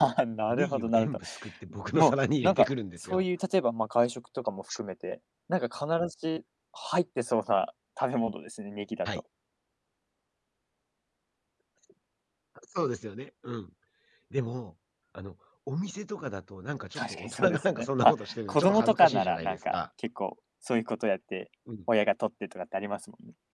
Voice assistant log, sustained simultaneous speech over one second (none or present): present